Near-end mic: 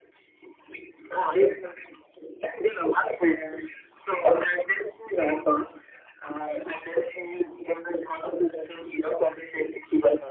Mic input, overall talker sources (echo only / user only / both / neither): echo only